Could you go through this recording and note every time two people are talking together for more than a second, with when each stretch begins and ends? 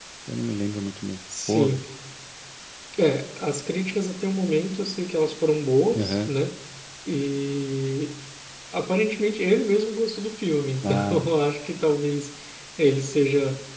none

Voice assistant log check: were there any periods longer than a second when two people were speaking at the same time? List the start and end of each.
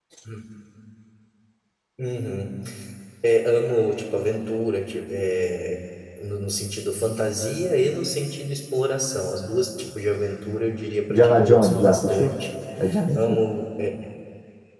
11.1-12.3

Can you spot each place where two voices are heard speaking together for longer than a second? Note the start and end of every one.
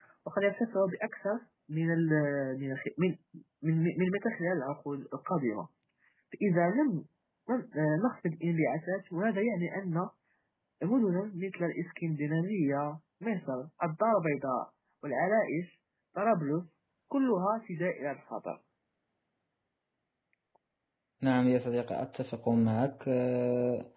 none

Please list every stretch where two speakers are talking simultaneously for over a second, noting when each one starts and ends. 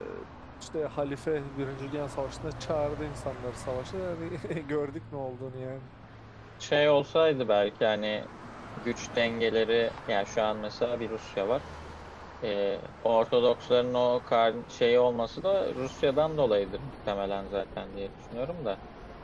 none

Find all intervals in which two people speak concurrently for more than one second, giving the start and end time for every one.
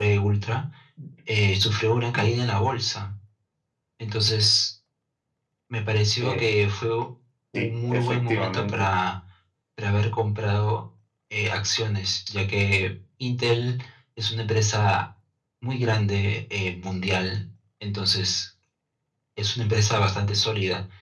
7.5-8.9

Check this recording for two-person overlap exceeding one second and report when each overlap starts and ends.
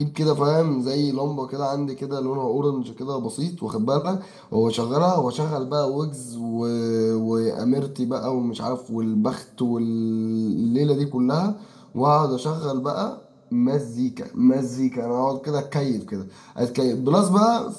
none

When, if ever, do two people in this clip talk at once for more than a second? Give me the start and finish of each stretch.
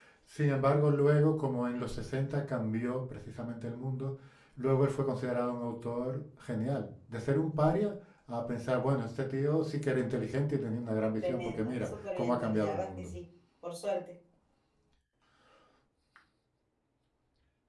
11.2-13.1

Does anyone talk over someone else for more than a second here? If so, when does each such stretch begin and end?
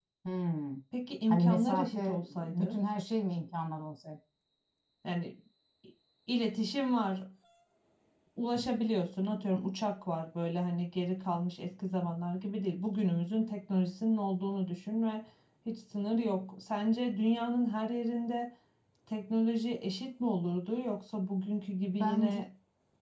1.3-2.8

